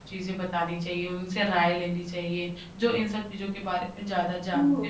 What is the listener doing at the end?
taking over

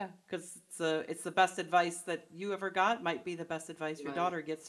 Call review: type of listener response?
listening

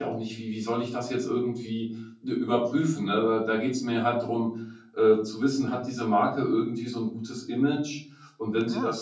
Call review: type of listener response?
listening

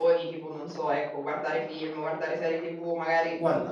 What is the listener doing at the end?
listening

